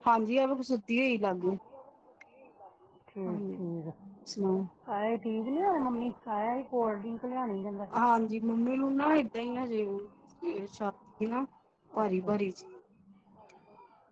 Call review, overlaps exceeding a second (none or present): none